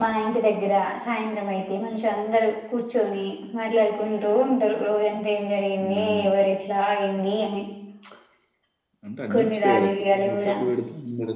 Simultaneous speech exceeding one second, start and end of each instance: 9.3-10.5

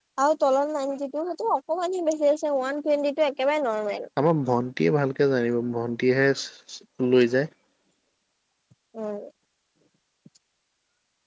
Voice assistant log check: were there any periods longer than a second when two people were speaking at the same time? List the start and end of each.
none

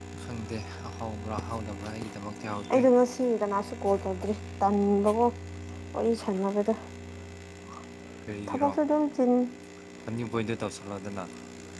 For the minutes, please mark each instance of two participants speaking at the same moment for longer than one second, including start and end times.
none

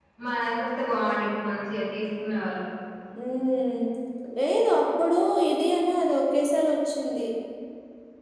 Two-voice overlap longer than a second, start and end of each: none

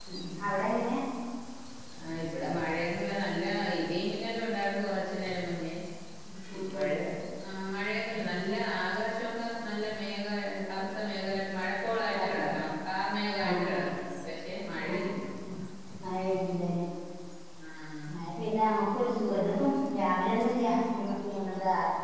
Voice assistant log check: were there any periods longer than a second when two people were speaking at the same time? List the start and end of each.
none

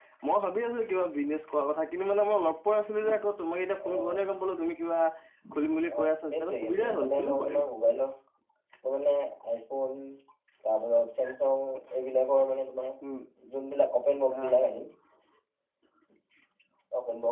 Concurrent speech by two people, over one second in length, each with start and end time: 6.0-7.5

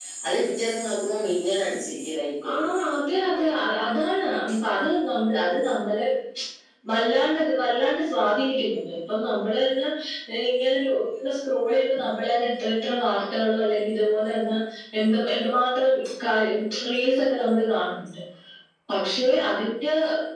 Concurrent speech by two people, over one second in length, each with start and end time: none

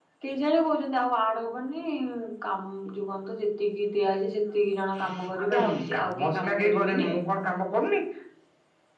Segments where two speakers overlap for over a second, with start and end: 5.4-7.1

